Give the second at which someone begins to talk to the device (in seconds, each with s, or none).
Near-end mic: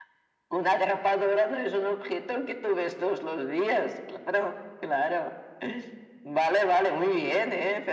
none